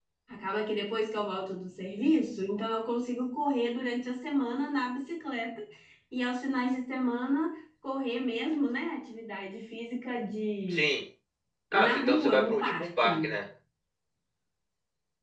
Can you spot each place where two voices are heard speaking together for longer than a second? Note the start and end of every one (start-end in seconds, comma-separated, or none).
11.7-13.1